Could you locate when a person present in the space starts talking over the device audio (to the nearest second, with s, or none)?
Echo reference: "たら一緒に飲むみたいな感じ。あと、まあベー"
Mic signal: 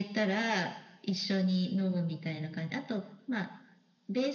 none